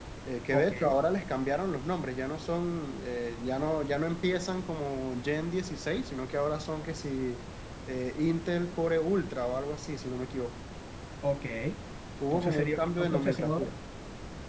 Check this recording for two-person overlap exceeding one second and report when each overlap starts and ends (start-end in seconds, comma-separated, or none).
12.3-13.7